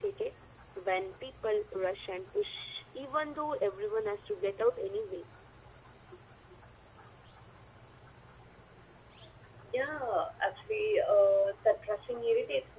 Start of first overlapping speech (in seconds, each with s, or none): none